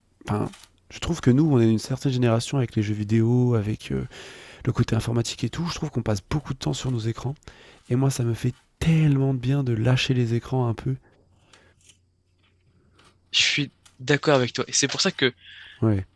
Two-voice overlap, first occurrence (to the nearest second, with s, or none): none